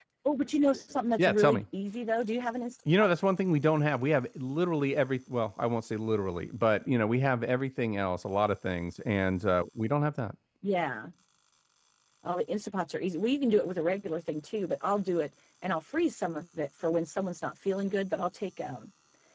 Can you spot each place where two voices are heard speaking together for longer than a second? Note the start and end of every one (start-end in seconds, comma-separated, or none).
none